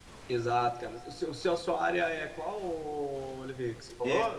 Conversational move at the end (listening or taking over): taking over